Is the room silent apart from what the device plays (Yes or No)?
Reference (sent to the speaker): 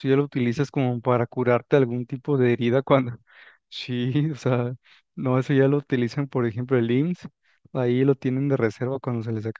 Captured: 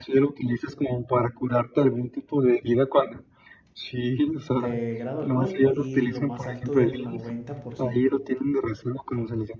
No